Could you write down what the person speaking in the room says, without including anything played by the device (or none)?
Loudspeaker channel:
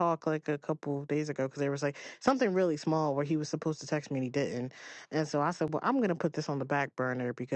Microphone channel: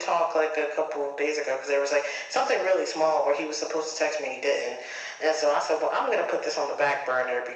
none